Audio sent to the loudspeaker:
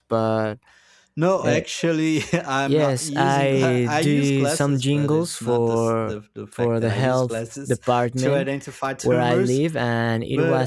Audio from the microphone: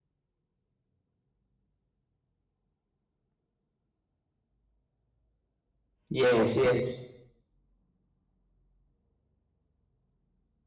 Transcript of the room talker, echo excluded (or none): Yes, yes.